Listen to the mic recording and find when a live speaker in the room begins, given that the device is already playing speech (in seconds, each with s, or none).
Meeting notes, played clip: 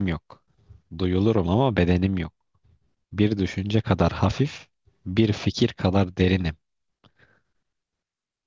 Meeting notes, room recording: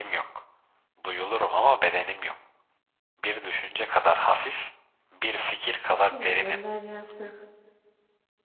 5.9 s